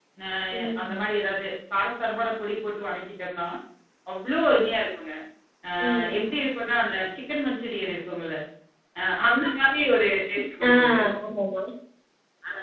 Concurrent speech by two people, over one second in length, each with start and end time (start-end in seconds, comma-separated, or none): none